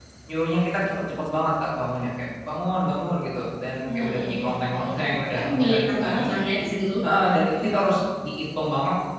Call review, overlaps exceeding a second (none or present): present